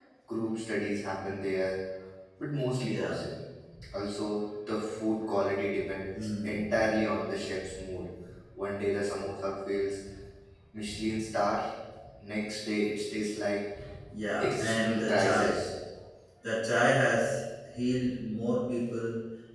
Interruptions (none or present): present